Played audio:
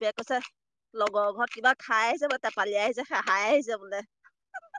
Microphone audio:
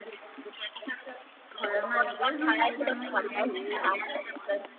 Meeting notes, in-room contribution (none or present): present